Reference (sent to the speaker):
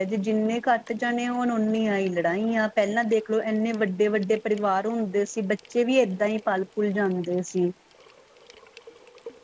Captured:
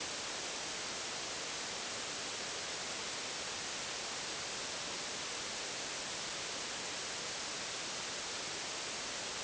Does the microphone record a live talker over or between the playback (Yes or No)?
No